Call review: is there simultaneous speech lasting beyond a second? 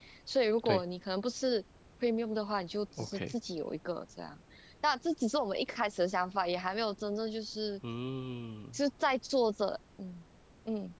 No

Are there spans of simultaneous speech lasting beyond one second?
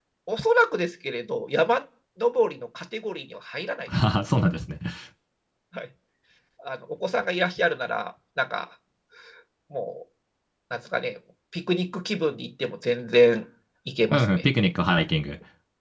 No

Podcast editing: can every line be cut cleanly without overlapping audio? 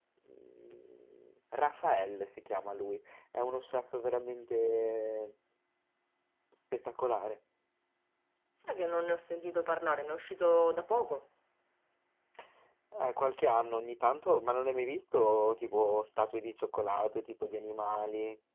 Yes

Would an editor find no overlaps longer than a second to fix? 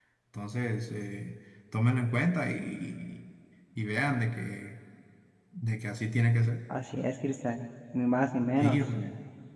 Yes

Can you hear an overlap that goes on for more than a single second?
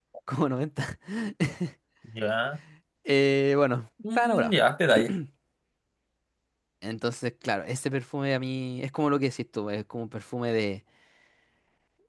No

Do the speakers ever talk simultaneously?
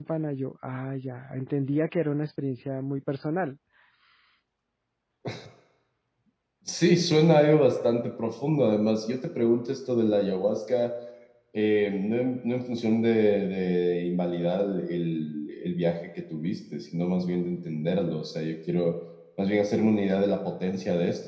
No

